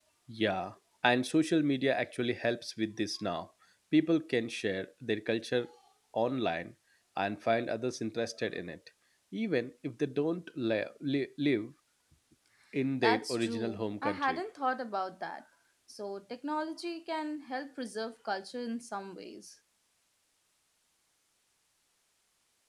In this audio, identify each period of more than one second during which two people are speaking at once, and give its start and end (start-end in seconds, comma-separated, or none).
13.0-14.4